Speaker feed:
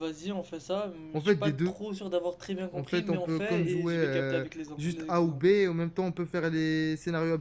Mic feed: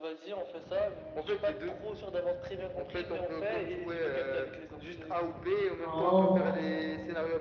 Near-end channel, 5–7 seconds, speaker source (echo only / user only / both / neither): both